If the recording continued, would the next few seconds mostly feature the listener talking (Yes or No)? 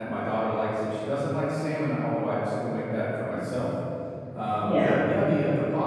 No